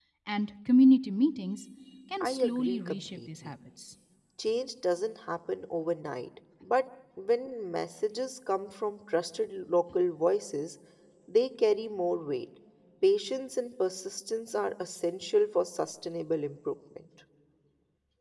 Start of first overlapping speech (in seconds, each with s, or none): 2.2 s